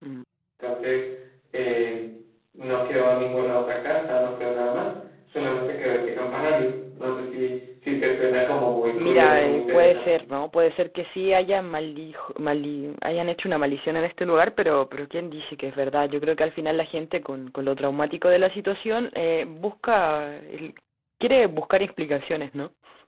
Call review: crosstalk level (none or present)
present